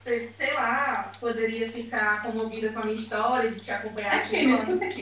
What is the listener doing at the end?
taking over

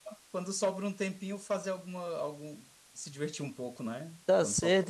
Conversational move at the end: taking over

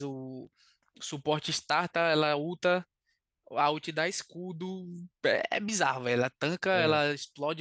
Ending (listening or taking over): listening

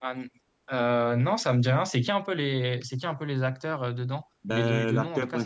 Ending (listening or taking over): taking over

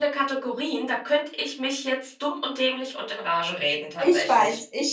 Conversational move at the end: taking over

